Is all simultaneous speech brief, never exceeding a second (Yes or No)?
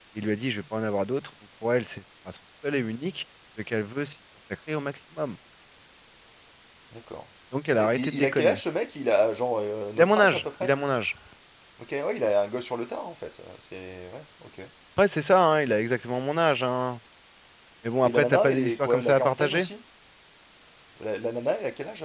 No